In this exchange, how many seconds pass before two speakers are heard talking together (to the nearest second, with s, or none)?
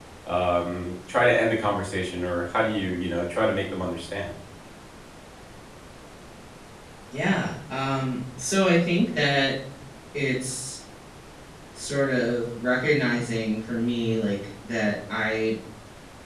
none